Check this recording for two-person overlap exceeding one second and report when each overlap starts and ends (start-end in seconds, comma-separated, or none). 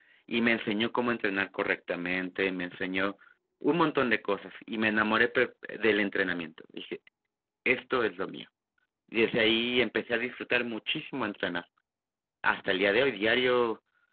none